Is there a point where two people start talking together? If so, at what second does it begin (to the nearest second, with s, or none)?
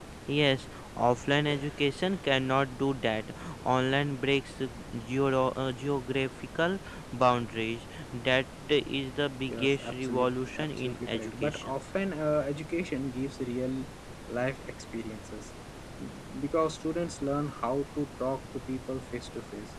9 s